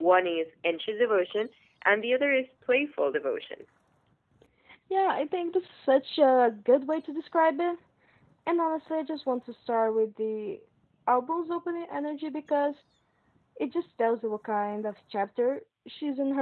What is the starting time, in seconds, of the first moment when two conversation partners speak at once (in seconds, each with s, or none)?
none